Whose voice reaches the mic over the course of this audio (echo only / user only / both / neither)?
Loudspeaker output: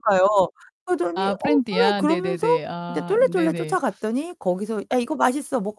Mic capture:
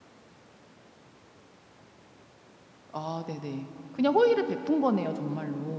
user only